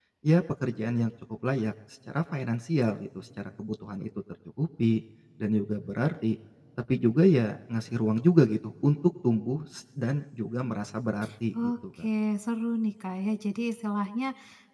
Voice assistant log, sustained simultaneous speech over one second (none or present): none